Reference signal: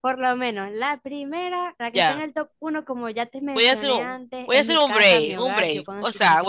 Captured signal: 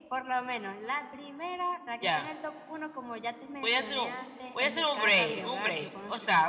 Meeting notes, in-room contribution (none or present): none